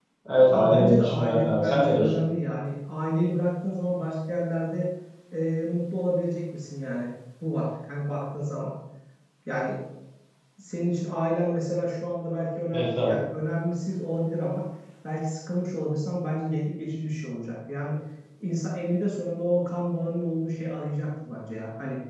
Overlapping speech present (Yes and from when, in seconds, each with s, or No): Yes, from 0.5 s